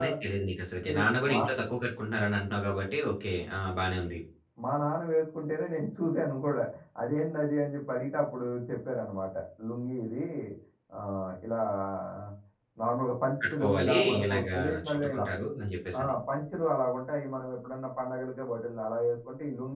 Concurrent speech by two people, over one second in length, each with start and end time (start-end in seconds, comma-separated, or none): 13.5-15.2